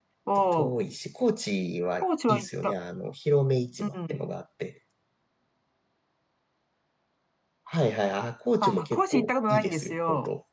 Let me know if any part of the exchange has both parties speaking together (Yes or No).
Yes